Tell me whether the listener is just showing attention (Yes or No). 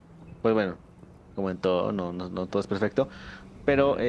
Yes